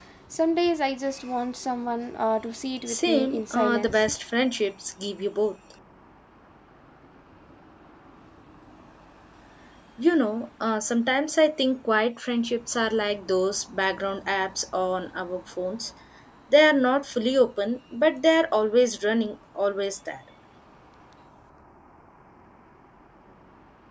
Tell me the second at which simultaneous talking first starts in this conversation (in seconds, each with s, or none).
2.9 s